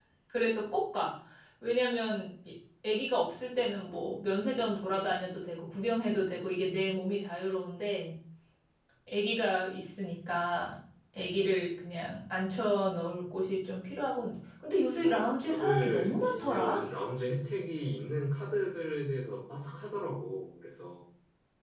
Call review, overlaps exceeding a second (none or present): present